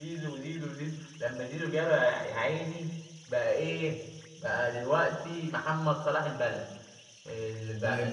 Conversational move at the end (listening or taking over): taking over